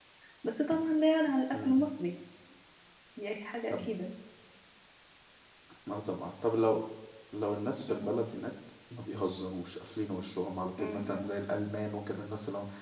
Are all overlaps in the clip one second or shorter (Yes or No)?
Yes